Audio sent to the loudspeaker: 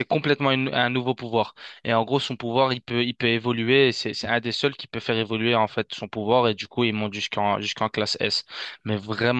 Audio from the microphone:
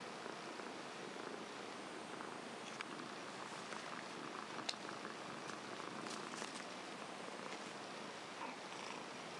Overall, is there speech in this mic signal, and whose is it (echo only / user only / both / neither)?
neither